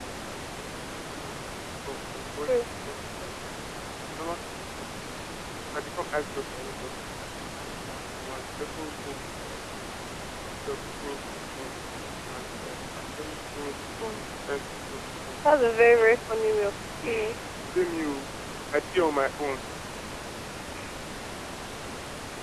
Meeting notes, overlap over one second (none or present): none